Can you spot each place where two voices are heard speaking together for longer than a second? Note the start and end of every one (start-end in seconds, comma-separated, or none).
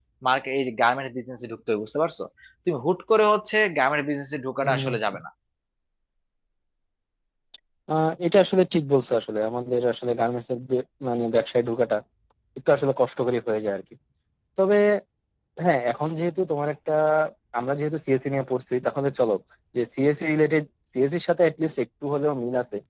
none